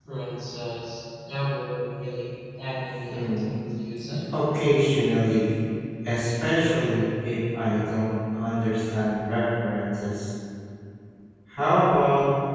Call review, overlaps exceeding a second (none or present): none